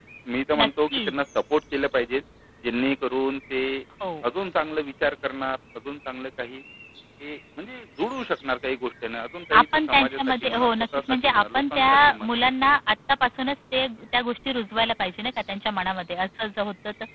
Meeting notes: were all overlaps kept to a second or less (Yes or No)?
No